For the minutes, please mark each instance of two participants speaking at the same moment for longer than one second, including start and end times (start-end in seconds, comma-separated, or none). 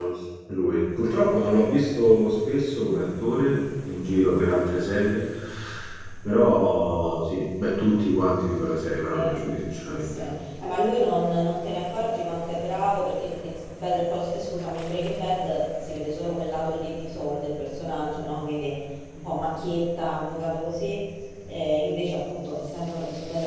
none